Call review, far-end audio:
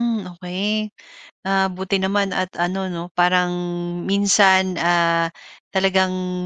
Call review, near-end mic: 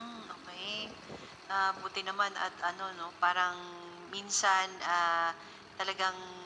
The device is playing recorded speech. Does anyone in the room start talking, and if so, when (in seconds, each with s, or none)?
none